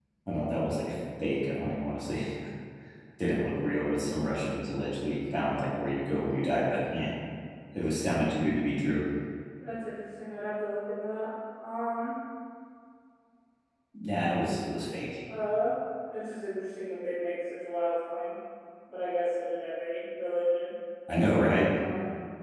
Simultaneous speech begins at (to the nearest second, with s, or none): none